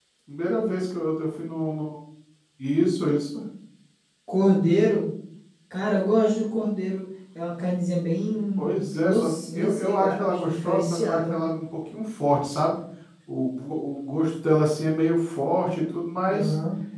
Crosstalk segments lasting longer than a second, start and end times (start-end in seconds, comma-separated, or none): 8.6-11.4